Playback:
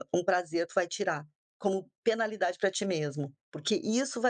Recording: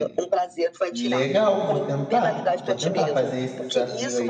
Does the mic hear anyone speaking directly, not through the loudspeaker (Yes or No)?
Yes